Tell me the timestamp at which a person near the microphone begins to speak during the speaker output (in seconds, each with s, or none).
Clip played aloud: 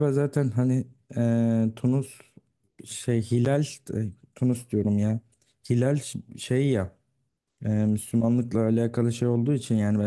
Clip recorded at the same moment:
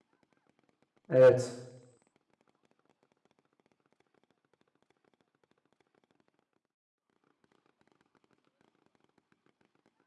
1.1 s